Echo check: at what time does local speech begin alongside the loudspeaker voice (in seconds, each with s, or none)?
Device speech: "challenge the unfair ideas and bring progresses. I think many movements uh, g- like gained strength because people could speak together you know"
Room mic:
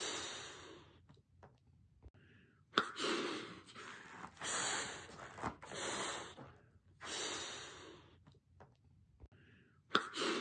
none